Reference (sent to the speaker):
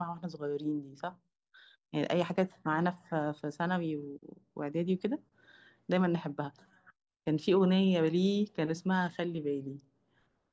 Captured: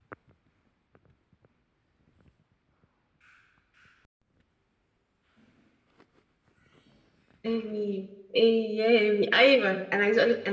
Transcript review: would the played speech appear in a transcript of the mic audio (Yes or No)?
No